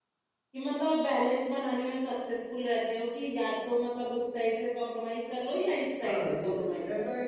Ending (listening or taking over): taking over